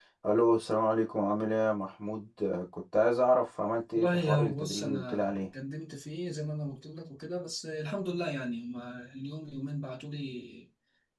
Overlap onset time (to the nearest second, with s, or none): 4 s